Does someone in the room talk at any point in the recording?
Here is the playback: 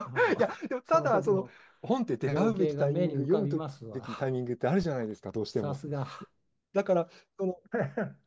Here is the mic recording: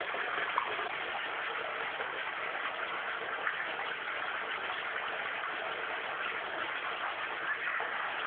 No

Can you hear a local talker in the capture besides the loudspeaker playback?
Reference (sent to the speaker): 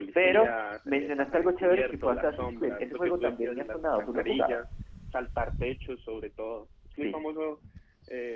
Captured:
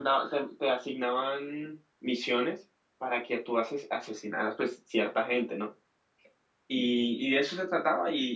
Yes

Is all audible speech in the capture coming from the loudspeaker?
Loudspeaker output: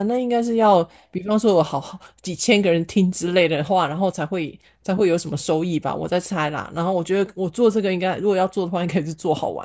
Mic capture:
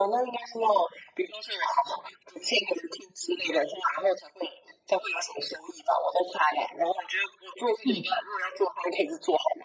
No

